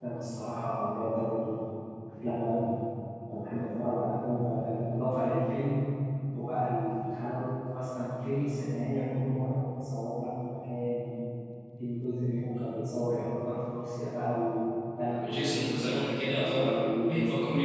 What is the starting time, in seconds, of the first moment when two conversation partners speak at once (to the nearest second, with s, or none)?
15 s